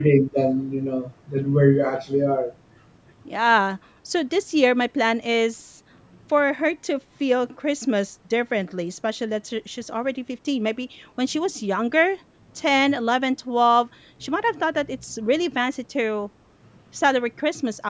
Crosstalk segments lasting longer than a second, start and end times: none

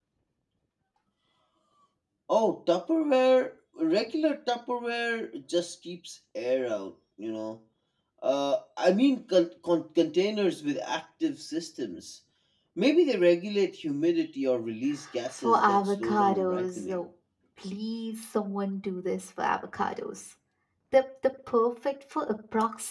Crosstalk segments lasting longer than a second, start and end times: 15.4-17.0

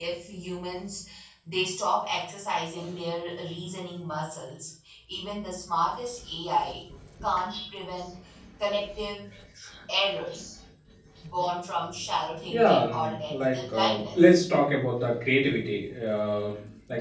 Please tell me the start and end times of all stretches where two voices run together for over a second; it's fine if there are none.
12.5-14.4

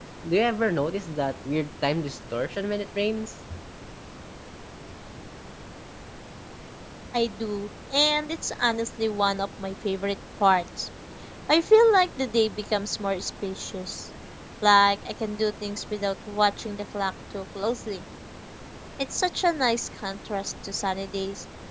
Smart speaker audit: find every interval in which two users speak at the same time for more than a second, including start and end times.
none

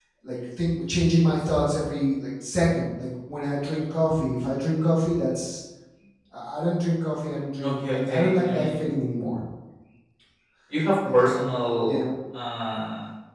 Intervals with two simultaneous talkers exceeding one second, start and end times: 7.6-8.9

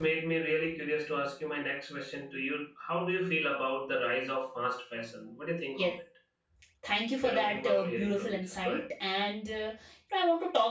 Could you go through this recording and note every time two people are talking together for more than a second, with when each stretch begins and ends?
7.2-8.8

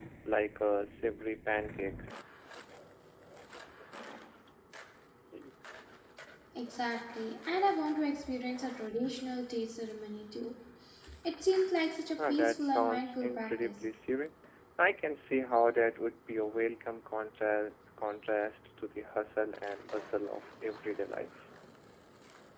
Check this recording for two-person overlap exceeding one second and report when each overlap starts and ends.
12.3-13.7

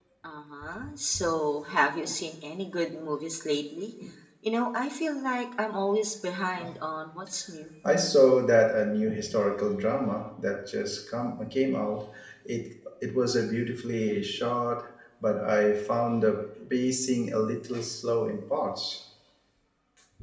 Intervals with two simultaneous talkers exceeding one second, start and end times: none

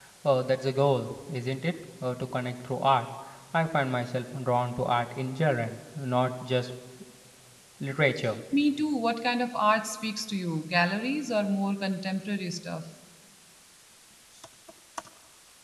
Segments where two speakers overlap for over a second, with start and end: none

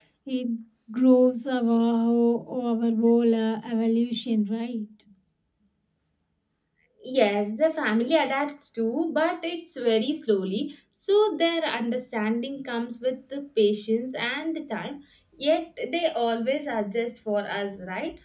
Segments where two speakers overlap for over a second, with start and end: none

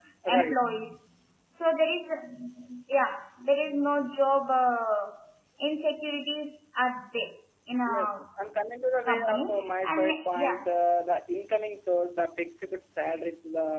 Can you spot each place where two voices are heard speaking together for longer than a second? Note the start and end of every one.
9.1-10.6

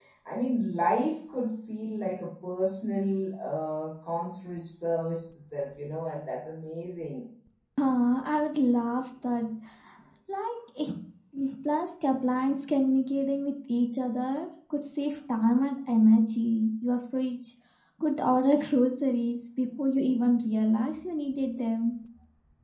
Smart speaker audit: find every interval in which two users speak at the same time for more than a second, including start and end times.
none

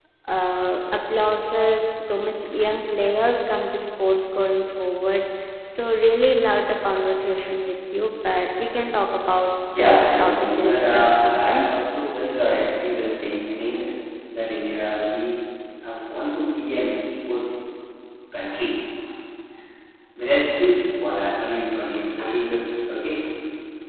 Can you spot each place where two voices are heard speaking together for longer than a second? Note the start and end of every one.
9.8-11.7

